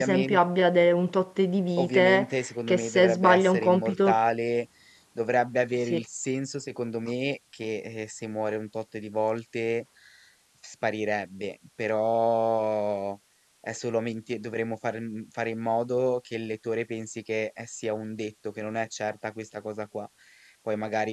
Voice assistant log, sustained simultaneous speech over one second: present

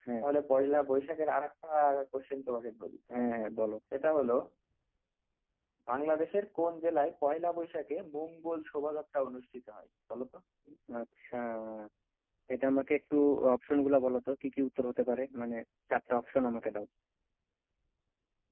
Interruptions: none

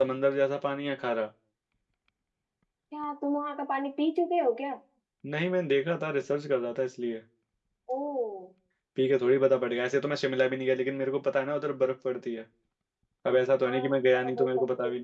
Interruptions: present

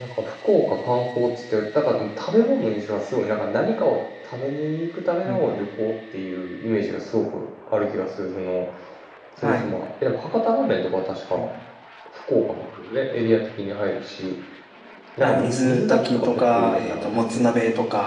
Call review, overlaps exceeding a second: present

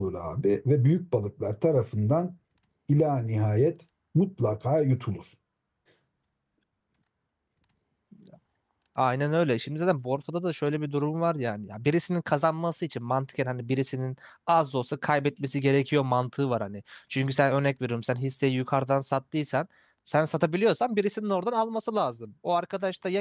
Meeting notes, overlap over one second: none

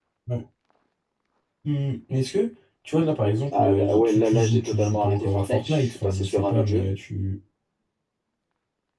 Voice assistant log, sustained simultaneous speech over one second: present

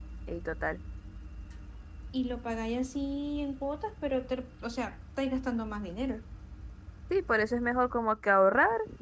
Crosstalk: none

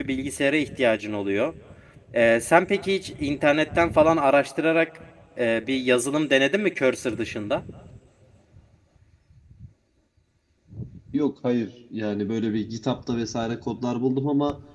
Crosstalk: none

